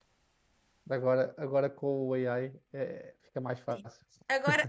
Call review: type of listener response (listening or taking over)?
taking over